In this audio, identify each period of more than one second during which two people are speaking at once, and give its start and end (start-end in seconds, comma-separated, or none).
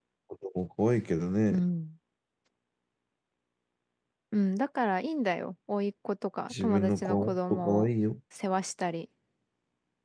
6.5-7.9